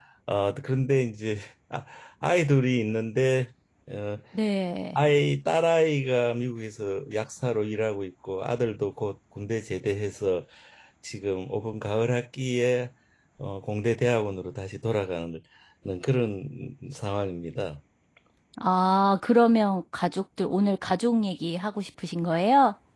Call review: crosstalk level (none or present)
none